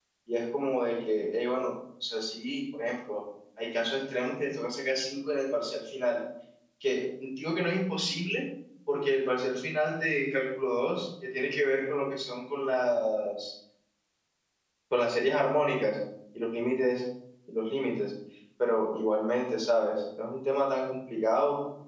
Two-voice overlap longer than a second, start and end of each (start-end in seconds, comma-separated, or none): none